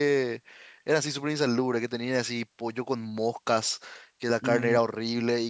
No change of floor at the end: Yes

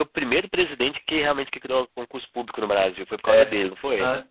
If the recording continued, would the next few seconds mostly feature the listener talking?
Yes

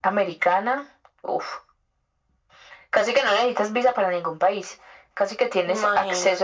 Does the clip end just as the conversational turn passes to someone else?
No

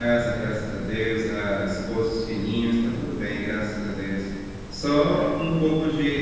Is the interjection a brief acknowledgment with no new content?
Yes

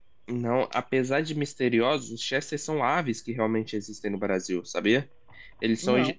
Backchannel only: Yes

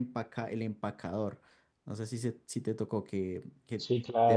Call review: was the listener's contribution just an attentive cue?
No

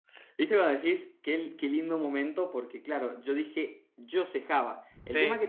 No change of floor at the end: Yes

